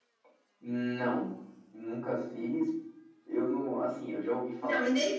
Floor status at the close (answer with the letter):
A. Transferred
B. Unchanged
A